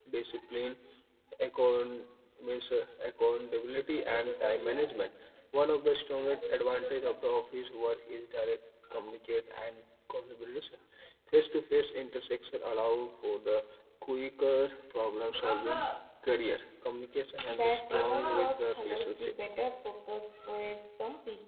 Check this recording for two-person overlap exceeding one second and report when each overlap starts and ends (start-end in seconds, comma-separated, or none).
17.5-19.3